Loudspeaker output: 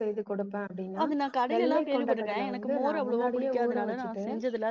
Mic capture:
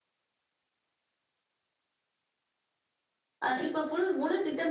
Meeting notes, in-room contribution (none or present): present